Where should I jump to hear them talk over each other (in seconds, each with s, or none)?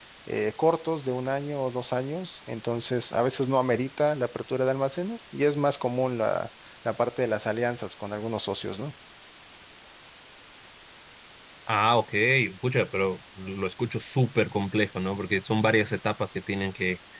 none